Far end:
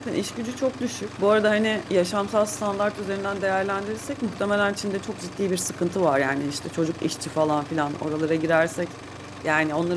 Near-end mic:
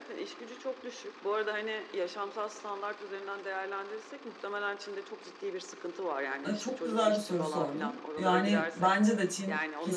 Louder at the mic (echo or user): user